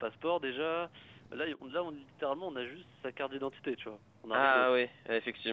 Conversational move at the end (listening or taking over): taking over